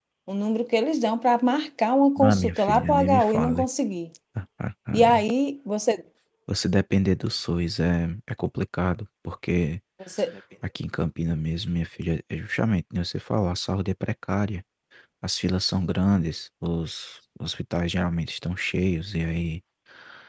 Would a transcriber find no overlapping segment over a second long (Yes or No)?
No